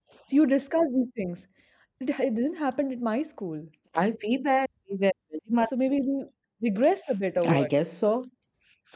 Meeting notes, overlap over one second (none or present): none